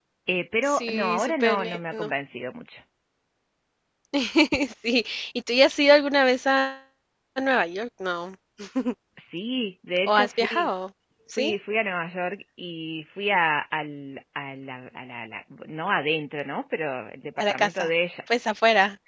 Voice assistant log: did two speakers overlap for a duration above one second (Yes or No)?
Yes